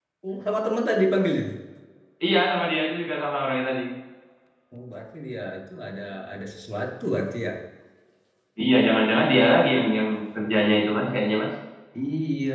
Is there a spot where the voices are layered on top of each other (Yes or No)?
No